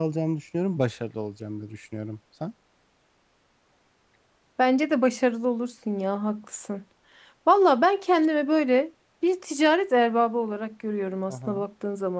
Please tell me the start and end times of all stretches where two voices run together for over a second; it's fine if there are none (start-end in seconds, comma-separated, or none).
none